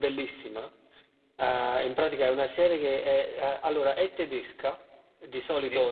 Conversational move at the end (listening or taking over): listening